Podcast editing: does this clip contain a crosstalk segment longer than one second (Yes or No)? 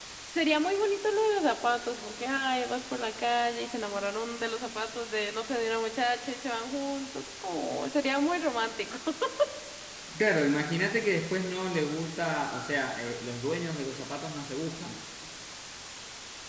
No